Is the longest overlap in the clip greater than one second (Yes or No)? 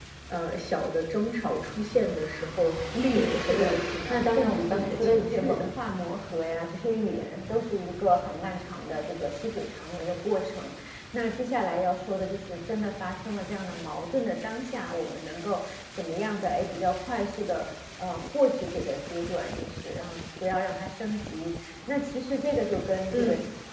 Yes